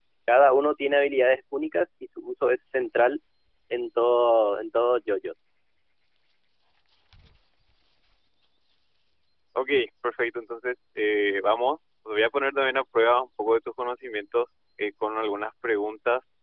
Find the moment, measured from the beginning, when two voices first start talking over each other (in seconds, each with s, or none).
none